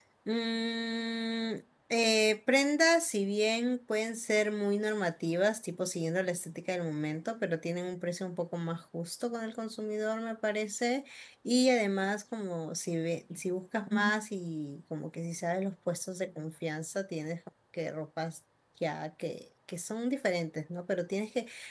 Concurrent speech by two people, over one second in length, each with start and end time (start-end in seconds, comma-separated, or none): none